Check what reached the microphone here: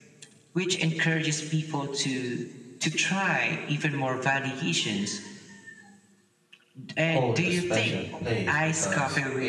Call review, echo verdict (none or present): present